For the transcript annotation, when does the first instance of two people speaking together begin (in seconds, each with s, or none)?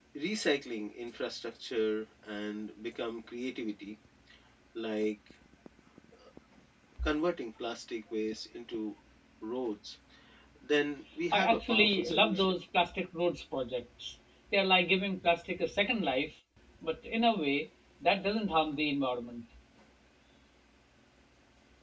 11.3 s